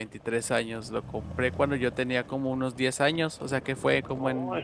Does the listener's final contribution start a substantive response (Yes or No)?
No